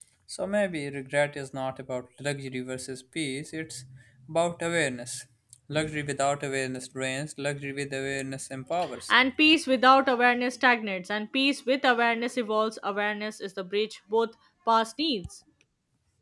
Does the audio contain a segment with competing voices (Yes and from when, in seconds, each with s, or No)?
No